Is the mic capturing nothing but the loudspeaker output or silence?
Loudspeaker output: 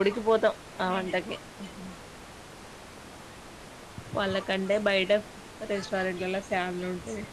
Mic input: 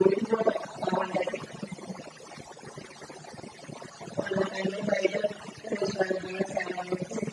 Yes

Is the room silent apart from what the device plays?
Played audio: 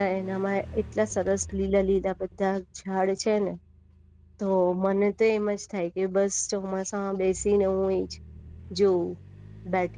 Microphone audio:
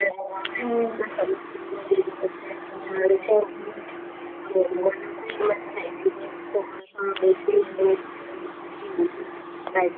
No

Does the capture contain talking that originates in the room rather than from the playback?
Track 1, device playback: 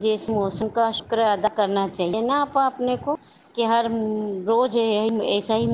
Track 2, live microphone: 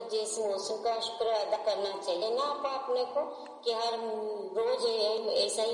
No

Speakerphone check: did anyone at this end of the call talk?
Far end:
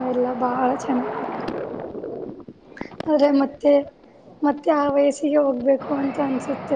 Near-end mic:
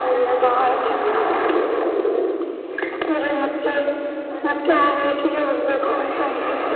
Yes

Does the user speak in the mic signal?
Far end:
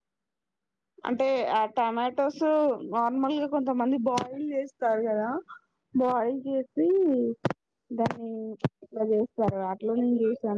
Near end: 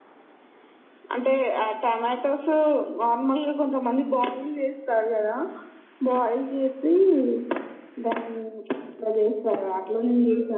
No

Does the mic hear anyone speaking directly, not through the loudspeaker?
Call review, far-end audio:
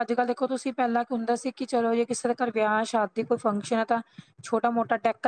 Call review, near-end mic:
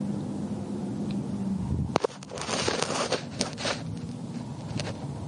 No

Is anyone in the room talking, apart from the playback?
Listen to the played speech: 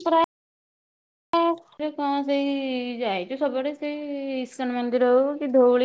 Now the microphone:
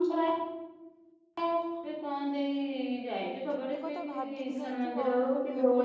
Yes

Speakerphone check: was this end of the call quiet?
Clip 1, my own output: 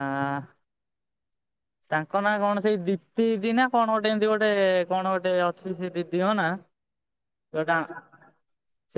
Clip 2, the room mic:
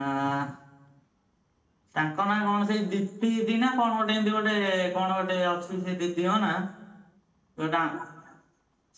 Yes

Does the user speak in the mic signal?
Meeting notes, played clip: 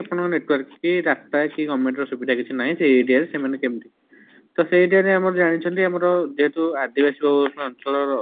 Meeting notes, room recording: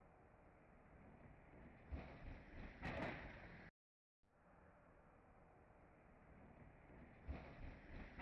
No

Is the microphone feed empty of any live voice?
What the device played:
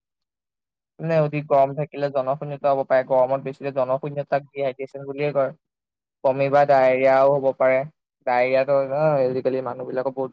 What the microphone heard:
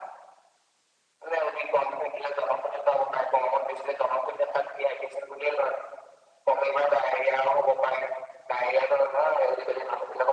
Yes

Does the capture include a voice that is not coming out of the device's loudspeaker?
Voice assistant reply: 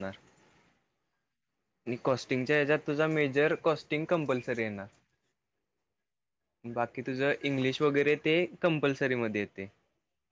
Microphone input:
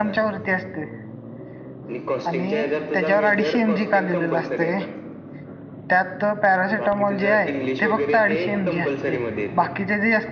Yes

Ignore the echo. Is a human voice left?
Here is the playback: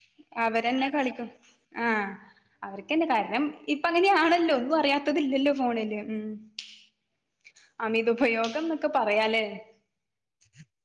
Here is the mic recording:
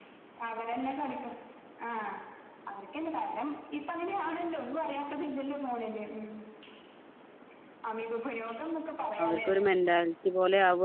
Yes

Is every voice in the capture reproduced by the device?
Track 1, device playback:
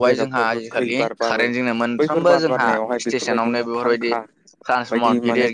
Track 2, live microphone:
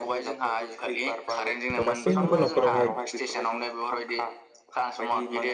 No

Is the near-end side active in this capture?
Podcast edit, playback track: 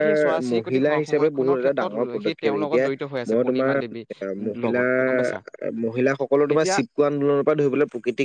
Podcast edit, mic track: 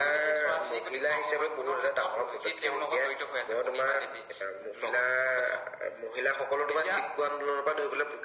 No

